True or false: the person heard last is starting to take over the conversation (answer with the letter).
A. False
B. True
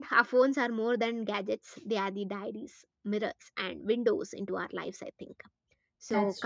A